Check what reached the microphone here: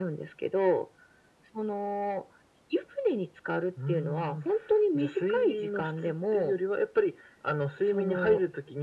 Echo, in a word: present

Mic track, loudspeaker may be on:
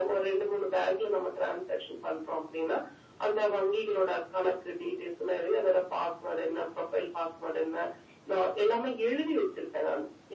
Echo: present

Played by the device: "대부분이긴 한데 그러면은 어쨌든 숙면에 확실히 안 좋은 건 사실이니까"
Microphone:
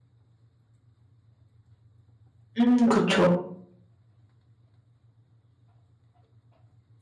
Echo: none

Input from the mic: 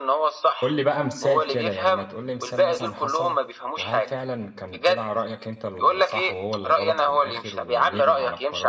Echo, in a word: present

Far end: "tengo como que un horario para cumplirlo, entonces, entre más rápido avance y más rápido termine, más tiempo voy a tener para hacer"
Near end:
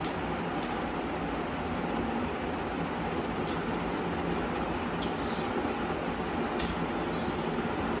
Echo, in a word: none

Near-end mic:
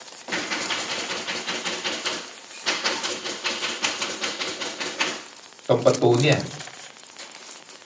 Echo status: none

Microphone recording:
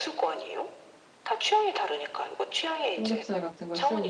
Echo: present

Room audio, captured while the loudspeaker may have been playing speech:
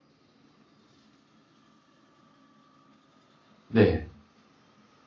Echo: none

